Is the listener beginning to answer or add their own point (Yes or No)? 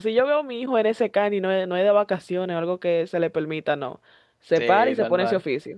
Yes